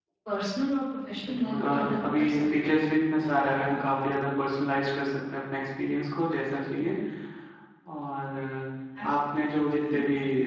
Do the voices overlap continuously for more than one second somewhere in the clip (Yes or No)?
Yes